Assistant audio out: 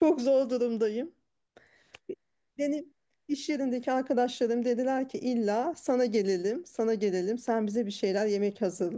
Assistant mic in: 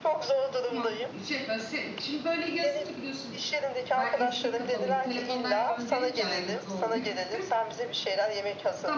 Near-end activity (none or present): present